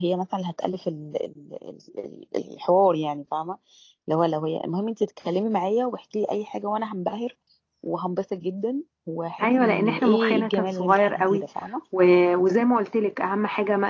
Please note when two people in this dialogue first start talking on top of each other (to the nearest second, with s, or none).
9 s